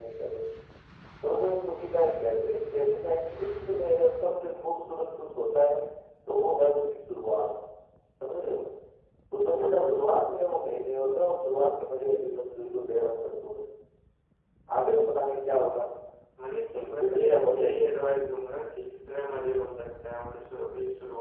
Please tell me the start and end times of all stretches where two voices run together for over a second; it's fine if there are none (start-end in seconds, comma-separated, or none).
16.7-17.9